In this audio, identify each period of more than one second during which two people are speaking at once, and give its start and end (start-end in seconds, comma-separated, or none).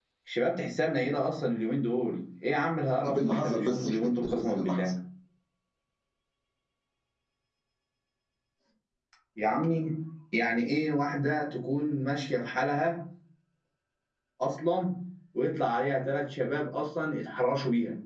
3.0-4.9